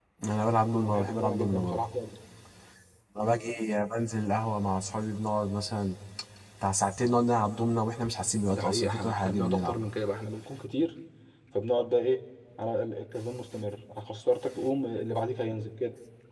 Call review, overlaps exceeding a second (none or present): present